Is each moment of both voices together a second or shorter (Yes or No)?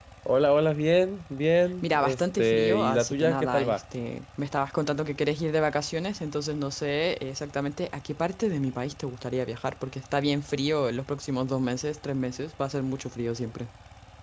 No